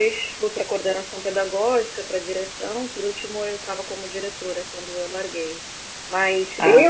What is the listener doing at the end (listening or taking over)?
listening